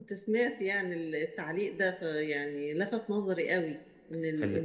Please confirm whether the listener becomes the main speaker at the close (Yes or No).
No